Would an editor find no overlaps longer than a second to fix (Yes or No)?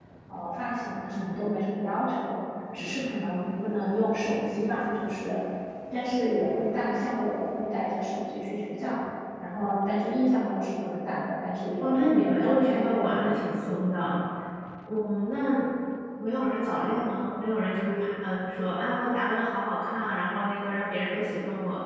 No